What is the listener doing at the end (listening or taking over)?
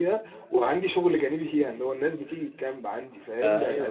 listening